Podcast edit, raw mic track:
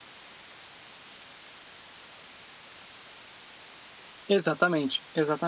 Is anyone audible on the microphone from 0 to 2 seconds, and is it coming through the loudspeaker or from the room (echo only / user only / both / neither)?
neither